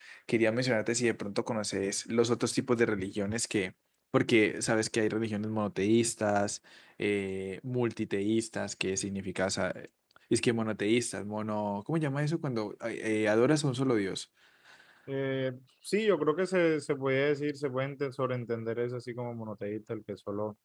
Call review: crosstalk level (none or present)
none